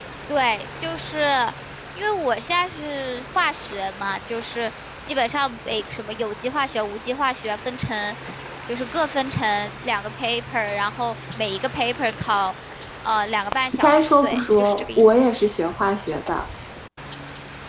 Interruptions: present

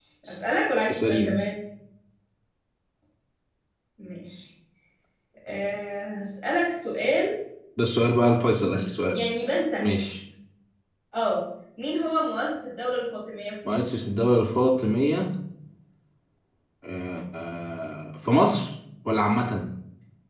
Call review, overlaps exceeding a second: none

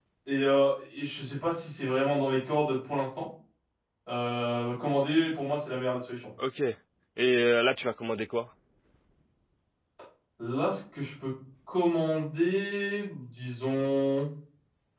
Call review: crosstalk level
none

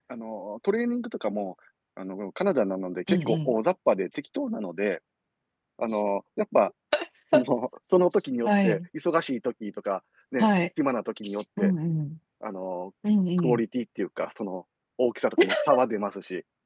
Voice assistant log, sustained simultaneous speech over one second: none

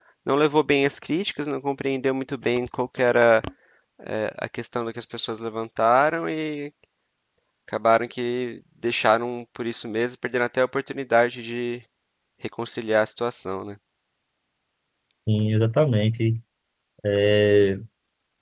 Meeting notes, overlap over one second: none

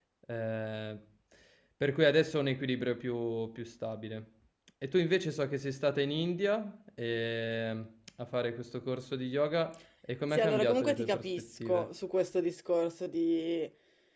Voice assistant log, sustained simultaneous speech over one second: present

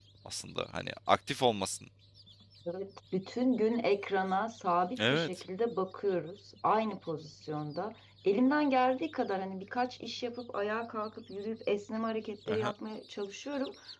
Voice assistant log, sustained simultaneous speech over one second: none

